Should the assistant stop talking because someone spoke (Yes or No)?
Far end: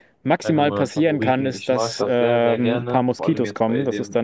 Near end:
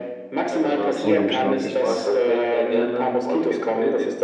Yes